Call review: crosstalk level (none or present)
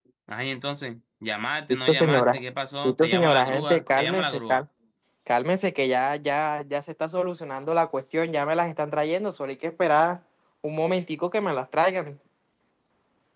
present